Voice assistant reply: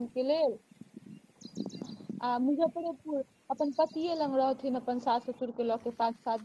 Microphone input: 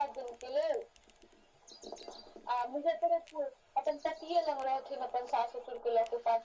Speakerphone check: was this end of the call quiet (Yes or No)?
Yes